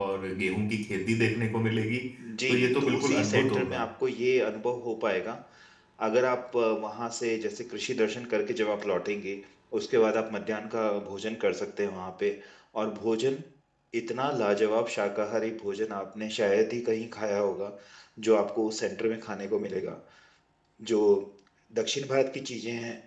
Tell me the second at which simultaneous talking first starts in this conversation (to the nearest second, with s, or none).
2 s